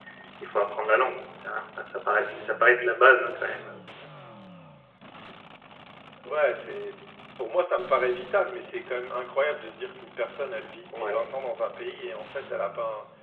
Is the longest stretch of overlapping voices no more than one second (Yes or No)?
Yes